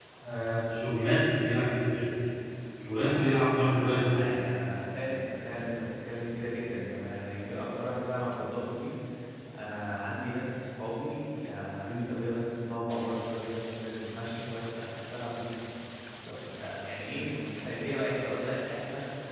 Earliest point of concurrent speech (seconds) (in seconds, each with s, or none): 2.9 s